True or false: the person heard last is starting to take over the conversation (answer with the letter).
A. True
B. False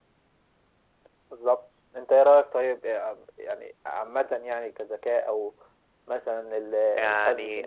A